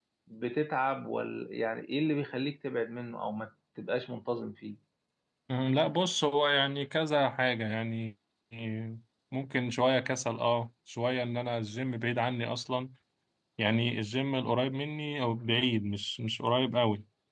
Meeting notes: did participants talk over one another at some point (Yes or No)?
No